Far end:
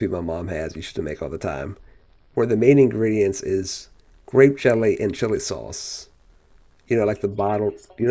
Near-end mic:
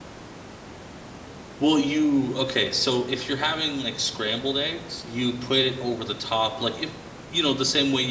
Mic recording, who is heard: user only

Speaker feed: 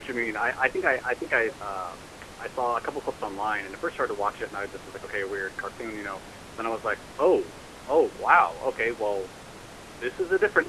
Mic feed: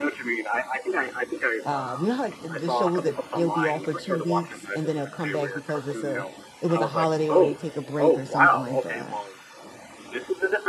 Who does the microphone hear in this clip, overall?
both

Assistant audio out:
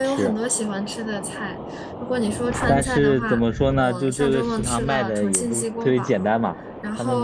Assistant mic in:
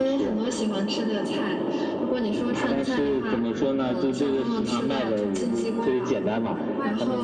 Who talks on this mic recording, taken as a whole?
both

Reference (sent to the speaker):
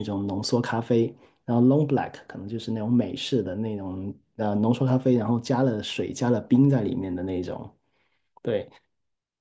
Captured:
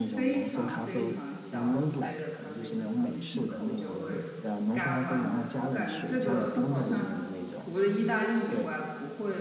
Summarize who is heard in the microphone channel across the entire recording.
both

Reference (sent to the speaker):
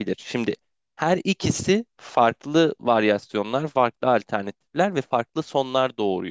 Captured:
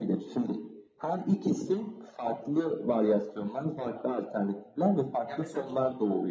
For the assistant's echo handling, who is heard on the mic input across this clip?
both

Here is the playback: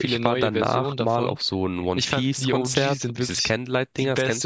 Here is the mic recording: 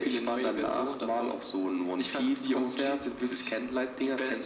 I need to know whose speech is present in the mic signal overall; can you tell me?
echo only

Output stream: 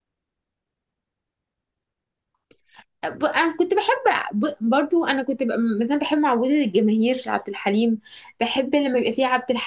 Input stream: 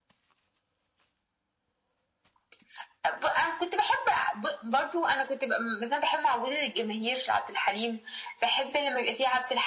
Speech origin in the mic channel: echo only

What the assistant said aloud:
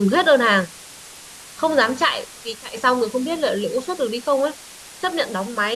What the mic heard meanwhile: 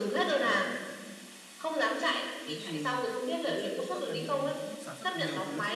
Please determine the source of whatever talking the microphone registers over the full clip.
both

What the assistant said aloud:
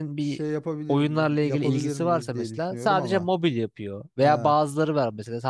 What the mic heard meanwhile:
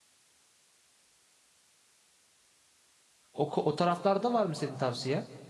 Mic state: user only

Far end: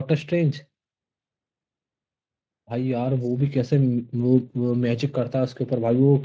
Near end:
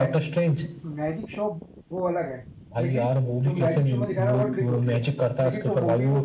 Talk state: both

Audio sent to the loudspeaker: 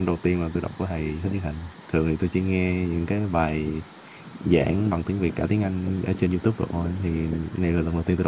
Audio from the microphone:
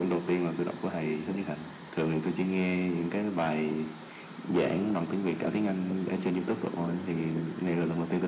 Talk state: echo only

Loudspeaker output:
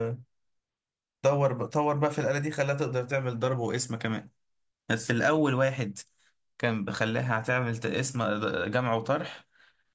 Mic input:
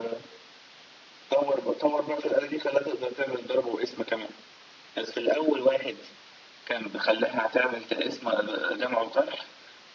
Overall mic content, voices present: echo only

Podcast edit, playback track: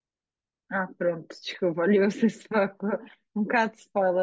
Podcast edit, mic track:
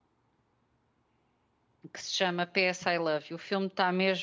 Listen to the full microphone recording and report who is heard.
user only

